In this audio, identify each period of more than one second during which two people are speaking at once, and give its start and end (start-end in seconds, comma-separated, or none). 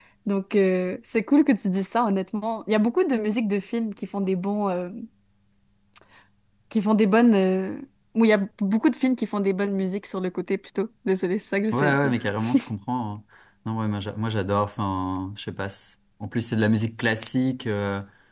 none